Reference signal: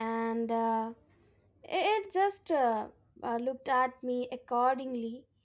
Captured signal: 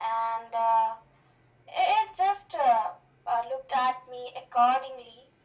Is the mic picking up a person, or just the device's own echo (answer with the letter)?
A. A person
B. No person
B